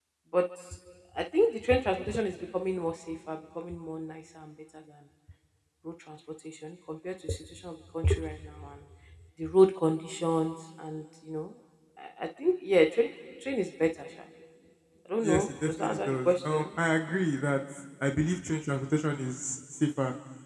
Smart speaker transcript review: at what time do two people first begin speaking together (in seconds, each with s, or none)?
15.2 s